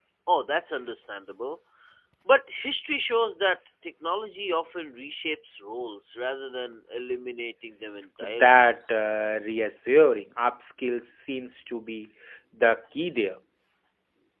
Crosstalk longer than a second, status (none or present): none